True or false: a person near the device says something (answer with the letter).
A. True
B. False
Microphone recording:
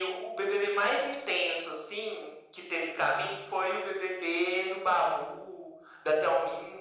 B